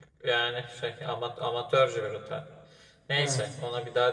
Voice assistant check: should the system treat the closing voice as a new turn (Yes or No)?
No